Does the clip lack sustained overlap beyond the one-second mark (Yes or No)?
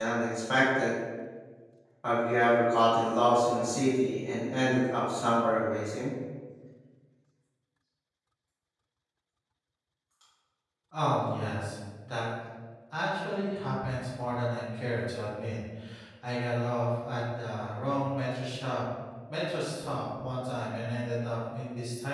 Yes